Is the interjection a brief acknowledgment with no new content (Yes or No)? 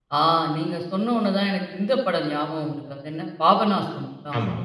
Yes